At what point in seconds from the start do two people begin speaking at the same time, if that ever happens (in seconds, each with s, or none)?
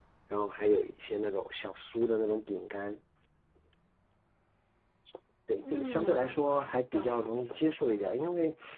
5.7 s